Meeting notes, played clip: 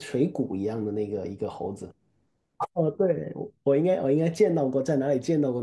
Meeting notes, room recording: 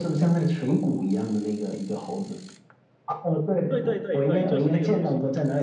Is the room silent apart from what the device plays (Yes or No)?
No